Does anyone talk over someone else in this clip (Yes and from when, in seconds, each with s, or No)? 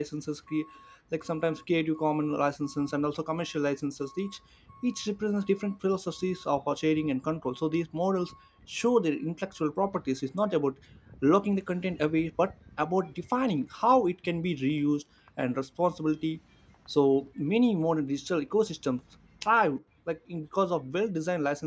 No